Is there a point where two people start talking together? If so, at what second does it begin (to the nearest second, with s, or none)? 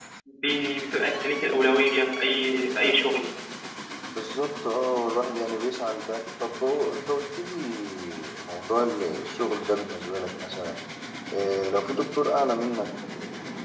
none